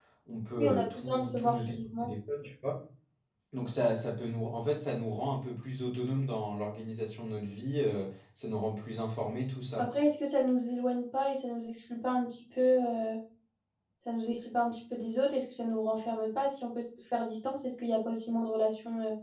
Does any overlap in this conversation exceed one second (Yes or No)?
Yes